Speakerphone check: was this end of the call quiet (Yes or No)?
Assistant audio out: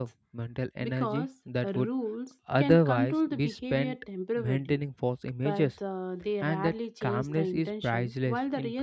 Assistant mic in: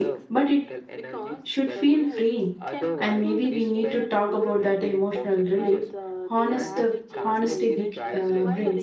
No